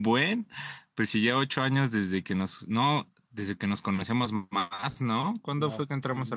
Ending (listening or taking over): taking over